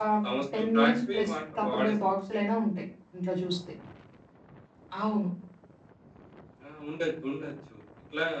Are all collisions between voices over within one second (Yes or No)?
No